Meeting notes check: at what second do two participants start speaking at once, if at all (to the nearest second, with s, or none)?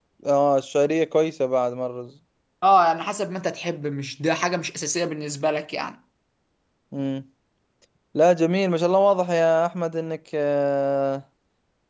none